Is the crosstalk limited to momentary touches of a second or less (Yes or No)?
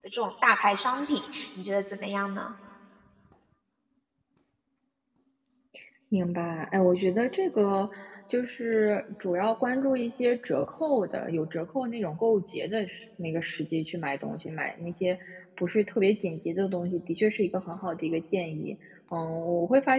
Yes